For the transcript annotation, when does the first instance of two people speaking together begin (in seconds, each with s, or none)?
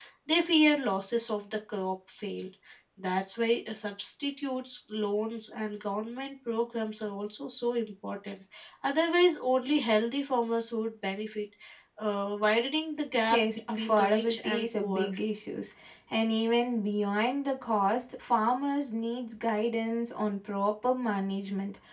13.3 s